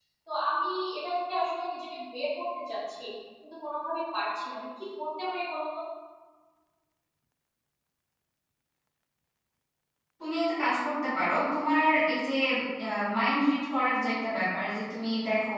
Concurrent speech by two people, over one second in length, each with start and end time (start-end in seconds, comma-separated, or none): none